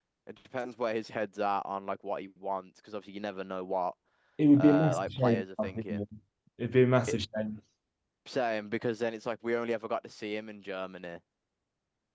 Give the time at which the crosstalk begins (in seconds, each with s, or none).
4.6 s